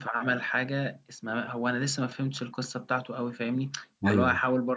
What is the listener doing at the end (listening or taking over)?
listening